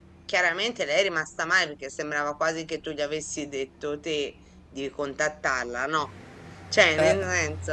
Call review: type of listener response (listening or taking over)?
listening